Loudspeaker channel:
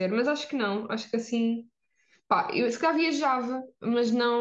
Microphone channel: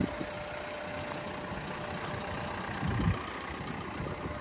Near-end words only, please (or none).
none